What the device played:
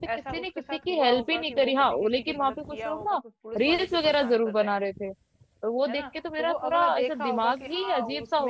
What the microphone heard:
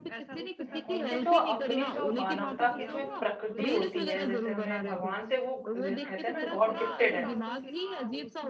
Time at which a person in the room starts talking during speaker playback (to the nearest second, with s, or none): 1 s